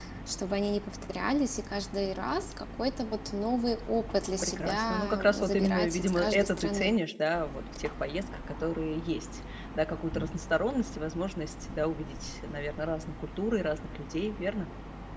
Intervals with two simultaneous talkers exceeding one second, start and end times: 4.4-6.9

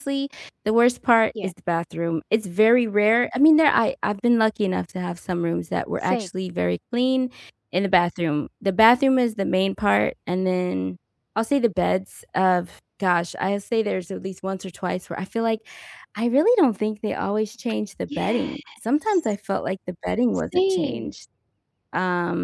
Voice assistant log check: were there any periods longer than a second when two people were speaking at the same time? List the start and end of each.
none

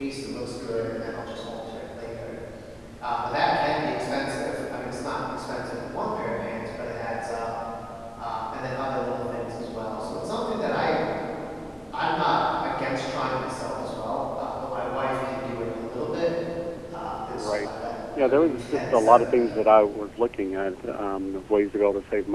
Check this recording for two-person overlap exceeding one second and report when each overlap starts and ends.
18.2-19.5

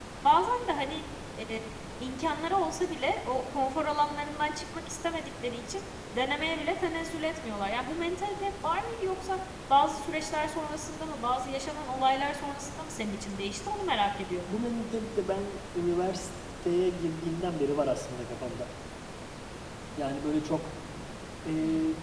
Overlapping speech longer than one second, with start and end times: none

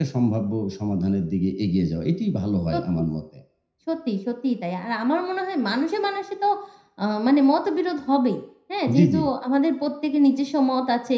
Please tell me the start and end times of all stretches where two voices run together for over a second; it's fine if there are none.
none

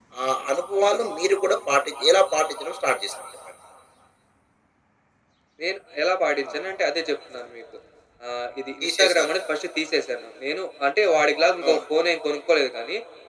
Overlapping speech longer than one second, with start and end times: none

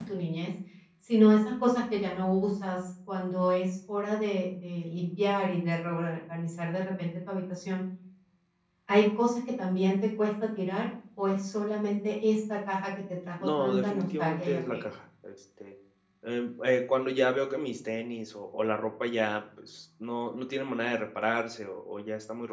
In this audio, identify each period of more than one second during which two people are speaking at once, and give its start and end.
13.4-14.8

